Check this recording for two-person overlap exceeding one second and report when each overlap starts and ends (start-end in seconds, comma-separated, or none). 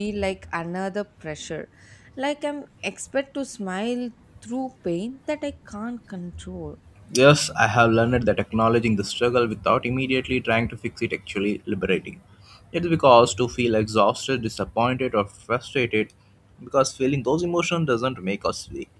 none